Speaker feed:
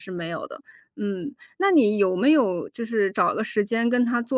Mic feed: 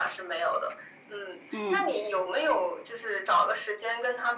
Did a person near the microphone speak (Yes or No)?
Yes